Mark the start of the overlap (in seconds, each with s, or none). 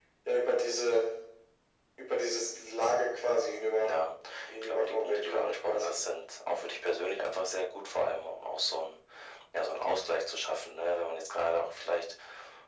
4.5 s